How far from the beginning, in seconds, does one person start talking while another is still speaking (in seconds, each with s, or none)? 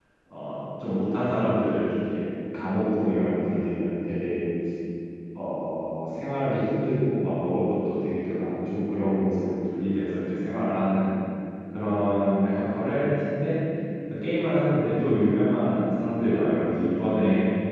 none